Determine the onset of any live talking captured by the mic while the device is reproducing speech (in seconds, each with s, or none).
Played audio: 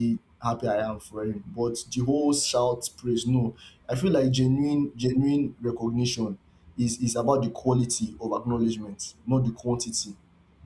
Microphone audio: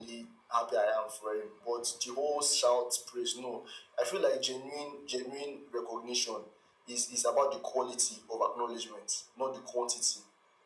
none